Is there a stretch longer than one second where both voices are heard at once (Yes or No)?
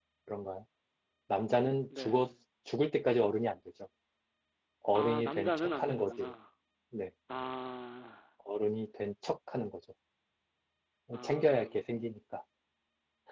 Yes